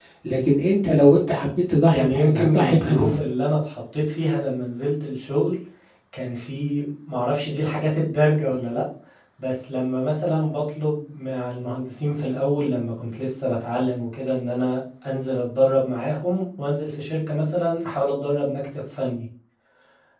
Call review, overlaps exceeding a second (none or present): present